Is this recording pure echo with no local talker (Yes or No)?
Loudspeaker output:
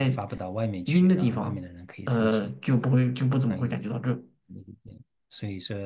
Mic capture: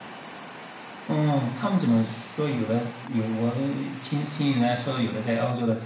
No